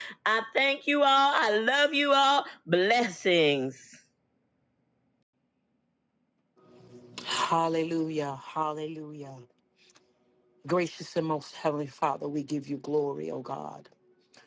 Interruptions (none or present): none